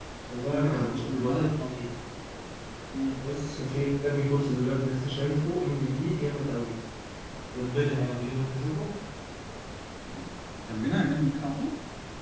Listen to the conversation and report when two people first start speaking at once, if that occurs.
0.5 s

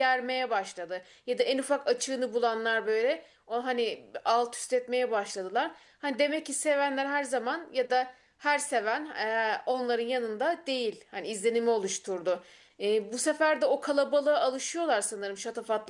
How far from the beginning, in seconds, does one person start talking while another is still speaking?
none

